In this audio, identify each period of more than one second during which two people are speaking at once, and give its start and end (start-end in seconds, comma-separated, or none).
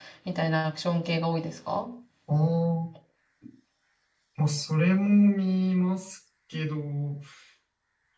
none